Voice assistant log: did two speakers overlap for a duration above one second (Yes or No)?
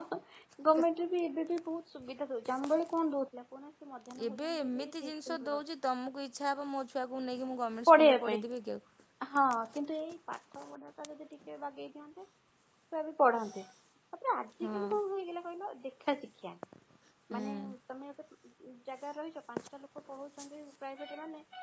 Yes